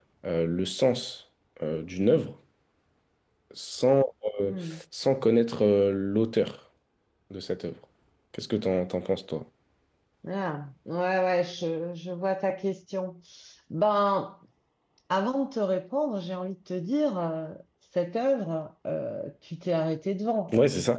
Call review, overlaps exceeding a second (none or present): none